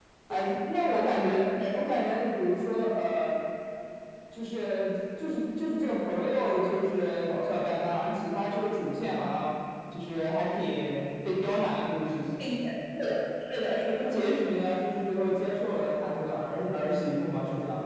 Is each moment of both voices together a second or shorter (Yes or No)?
Yes